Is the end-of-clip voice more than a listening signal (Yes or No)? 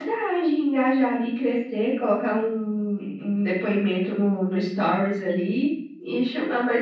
No